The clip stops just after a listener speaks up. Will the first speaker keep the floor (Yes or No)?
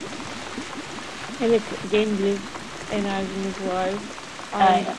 Yes